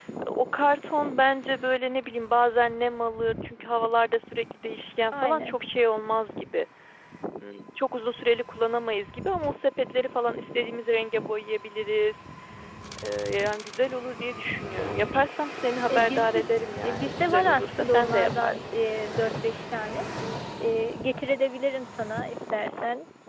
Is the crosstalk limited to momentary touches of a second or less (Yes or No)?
No